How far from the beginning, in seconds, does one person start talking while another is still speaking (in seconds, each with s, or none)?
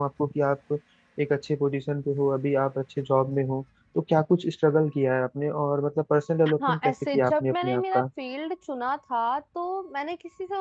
6.5 s